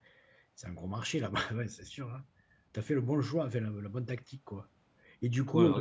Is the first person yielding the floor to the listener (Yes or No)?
No